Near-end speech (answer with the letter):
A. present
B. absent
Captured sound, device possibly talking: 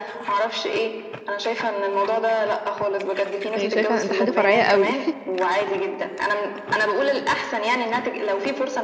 A